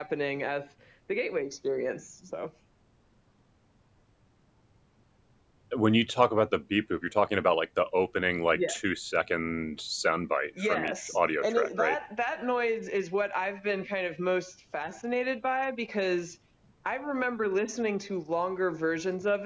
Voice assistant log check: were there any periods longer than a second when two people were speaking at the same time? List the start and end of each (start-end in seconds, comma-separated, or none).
10.6-12.0